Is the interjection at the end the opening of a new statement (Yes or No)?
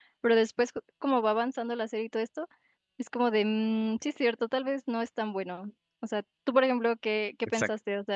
Yes